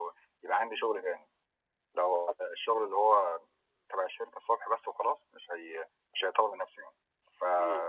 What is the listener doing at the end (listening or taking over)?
listening